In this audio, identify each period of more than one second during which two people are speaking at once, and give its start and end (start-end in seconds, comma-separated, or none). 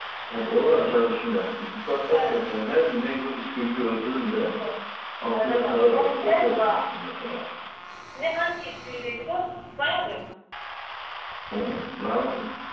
5.3-6.8